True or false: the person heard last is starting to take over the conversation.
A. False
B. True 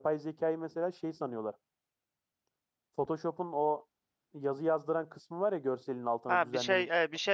B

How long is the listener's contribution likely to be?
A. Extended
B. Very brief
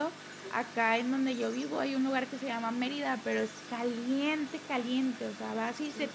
B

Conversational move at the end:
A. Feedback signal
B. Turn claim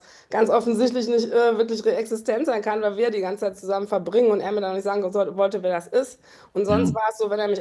A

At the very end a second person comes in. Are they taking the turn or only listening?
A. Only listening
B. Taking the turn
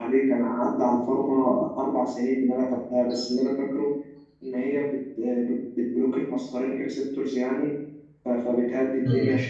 A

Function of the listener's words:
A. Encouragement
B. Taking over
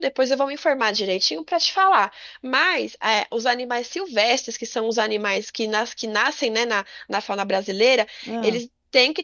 A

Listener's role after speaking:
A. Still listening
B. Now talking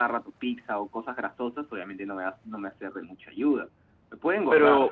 B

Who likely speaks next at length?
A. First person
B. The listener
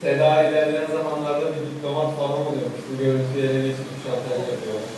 B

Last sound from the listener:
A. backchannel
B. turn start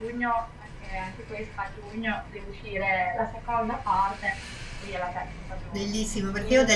B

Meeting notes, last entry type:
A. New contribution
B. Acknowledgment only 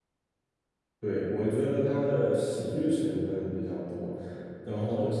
B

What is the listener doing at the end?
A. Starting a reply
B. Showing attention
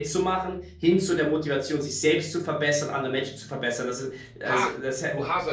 A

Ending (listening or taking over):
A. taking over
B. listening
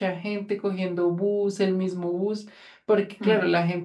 B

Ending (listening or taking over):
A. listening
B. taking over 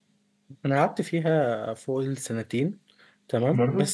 A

